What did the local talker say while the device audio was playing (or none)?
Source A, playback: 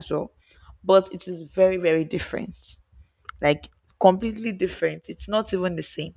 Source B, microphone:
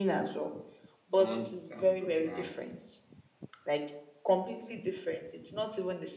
Someone um, broke your heart,